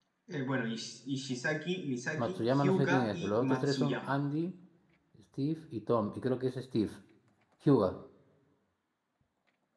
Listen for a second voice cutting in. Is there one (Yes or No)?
Yes